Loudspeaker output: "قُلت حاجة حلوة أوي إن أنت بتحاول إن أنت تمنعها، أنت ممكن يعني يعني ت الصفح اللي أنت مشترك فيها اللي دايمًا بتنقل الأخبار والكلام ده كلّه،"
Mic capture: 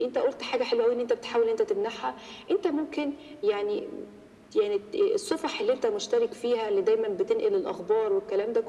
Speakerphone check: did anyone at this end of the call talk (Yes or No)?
No